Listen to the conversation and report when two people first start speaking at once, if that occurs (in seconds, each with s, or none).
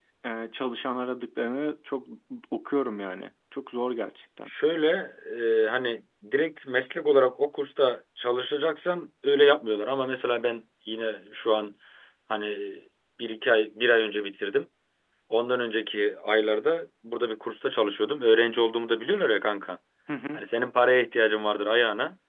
none